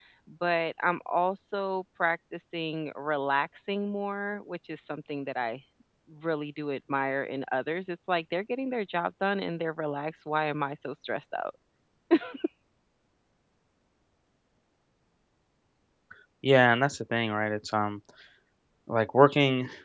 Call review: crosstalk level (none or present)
none